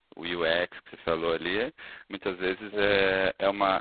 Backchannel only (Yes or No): Yes